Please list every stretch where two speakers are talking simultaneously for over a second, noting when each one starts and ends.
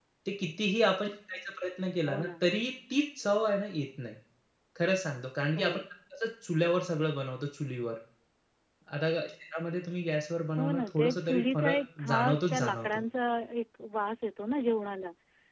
10.6-13.0

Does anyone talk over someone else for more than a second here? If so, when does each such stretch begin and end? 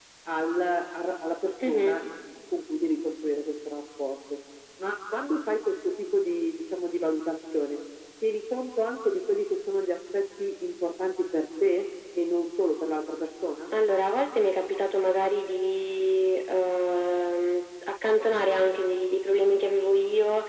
none

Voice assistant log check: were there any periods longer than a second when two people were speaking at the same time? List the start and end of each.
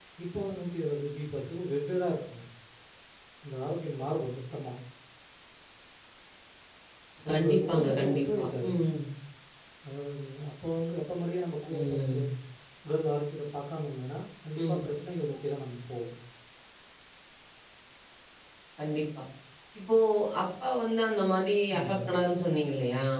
7.3-8.7

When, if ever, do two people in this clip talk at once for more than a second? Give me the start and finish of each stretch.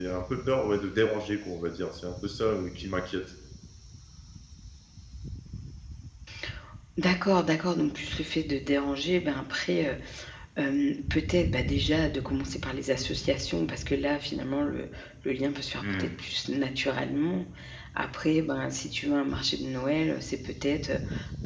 none

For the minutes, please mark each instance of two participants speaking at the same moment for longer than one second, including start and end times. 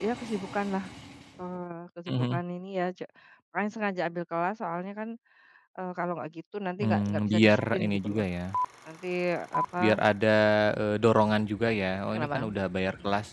6.8-8.2

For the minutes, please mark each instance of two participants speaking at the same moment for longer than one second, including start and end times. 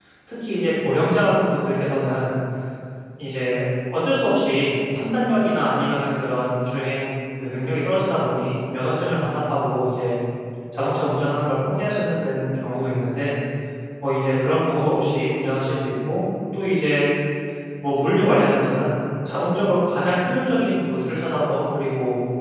none

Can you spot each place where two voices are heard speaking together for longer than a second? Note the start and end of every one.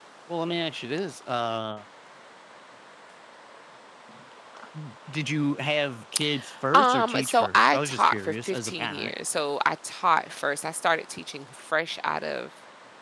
6.7-9.1

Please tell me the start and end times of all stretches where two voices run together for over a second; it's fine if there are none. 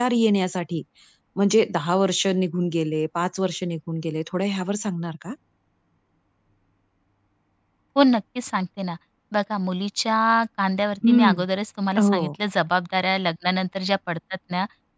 none

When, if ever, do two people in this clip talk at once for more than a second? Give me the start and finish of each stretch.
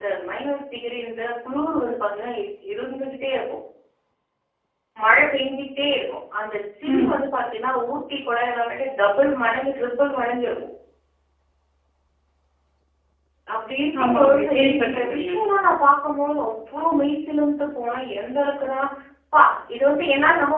14.0-15.3

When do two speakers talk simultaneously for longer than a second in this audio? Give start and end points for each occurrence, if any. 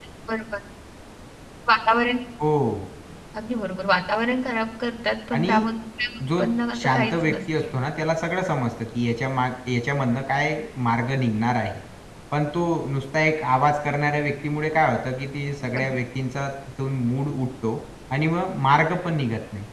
6.4-7.6

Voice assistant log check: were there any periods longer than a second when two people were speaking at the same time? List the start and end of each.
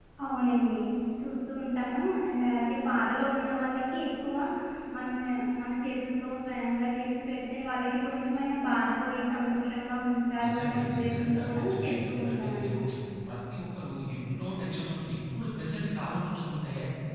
10.4-12.7

